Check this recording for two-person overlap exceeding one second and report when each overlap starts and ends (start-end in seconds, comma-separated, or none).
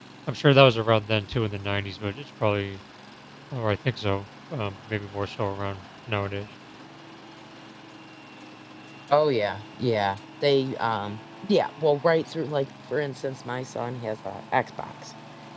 none